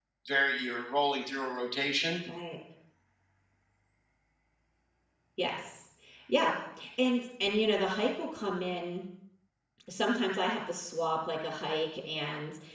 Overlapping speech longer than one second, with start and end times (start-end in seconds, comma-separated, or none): none